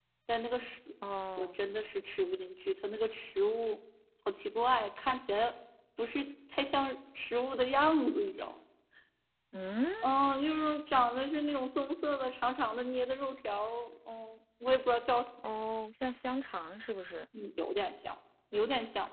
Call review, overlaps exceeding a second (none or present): none